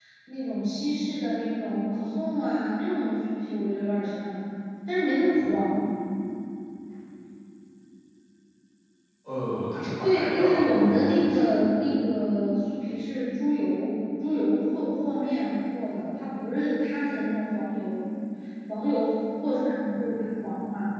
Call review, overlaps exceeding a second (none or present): present